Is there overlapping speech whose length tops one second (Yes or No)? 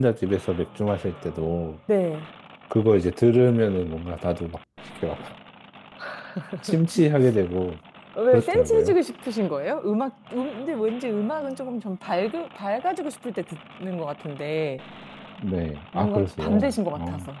Yes